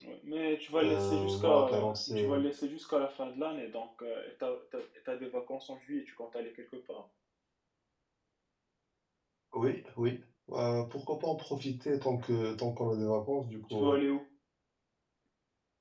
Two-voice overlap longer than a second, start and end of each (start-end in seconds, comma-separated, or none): 0.8-2.3